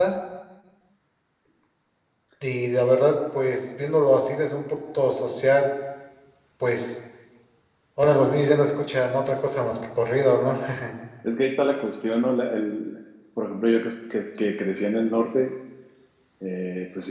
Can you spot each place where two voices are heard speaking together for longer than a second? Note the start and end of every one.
none

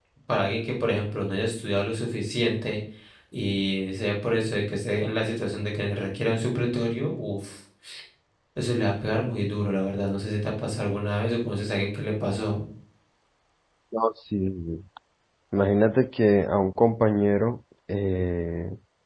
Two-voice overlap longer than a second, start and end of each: none

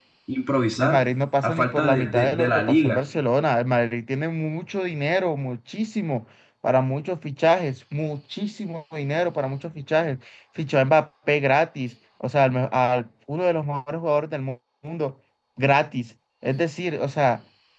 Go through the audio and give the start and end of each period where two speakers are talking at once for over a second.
1.4-3.0

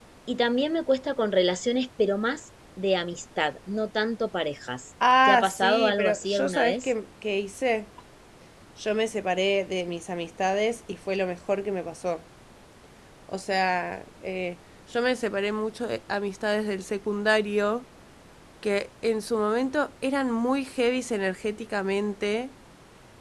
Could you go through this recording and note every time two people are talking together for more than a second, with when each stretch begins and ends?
5.3-6.9

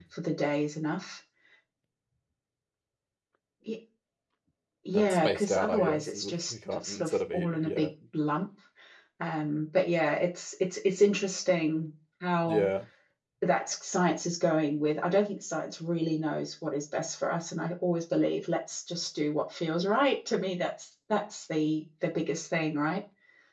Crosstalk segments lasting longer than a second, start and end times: 4.9-7.9

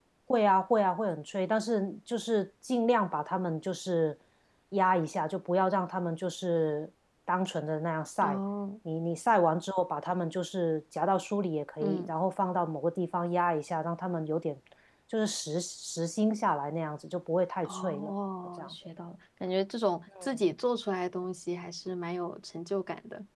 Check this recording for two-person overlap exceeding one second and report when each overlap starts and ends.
none

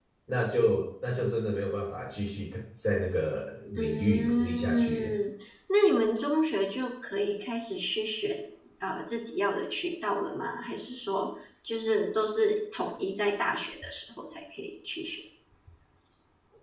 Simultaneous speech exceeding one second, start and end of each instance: 3.8-5.1

